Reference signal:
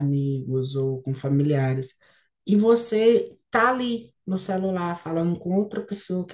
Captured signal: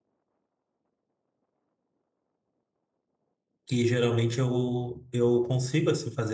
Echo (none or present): none